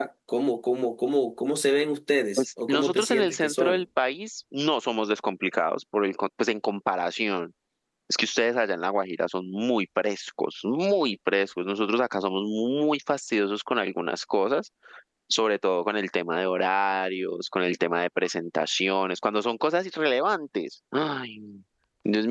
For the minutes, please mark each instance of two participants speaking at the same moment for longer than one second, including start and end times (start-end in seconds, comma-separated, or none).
2.4-3.8